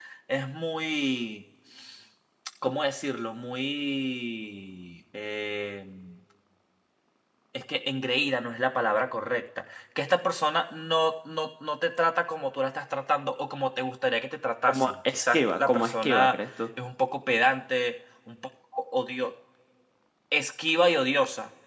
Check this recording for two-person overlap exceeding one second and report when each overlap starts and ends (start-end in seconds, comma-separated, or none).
14.7-16.4